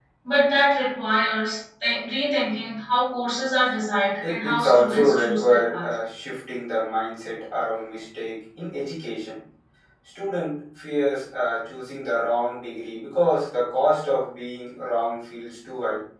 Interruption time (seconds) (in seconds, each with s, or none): 4.2 s